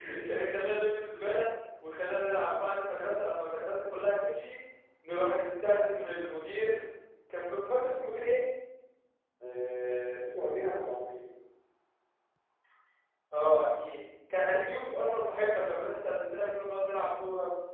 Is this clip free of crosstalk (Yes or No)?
Yes